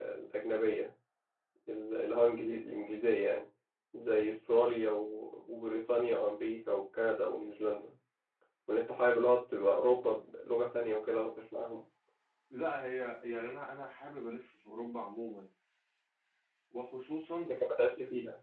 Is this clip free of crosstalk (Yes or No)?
Yes